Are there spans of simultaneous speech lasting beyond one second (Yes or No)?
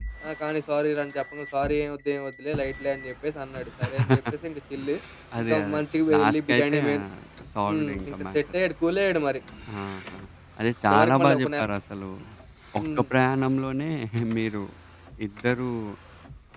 Yes